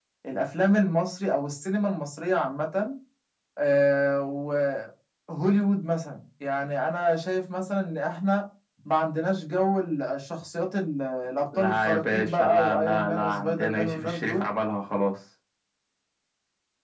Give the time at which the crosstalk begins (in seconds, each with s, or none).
11.5 s